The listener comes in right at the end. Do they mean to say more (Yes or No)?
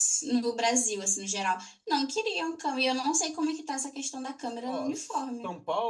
Yes